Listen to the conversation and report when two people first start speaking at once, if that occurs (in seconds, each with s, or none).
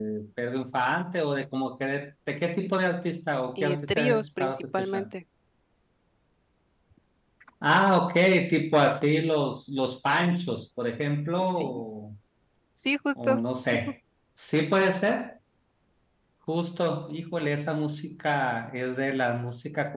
3.6 s